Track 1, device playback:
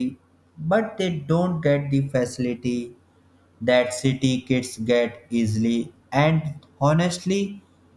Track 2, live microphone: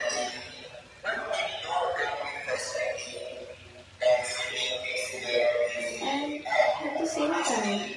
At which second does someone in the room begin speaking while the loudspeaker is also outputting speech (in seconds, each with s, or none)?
6.0 s